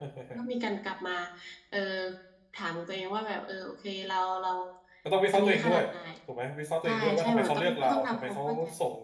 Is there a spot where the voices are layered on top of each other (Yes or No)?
Yes